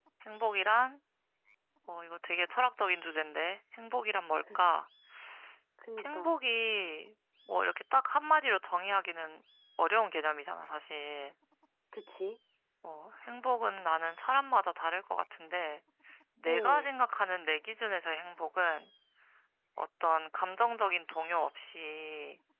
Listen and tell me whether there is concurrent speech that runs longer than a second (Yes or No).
No